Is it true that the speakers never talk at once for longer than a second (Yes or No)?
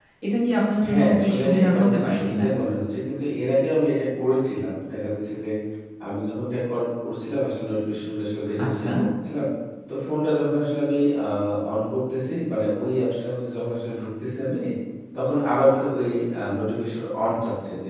No